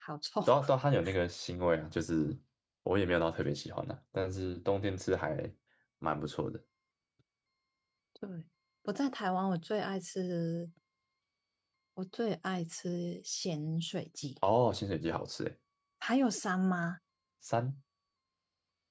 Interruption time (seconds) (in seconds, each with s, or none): none